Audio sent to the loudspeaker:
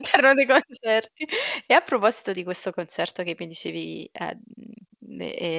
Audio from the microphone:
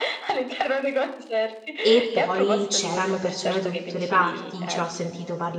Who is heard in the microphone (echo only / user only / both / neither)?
both